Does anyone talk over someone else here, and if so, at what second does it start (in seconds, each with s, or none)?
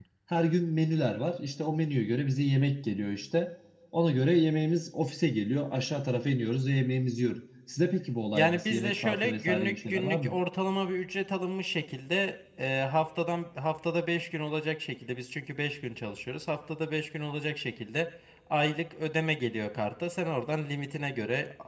8.3 s